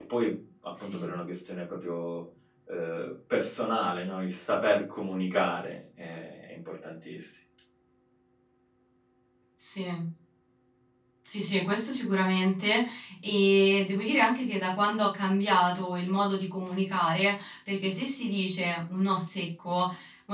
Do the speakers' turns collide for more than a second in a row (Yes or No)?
No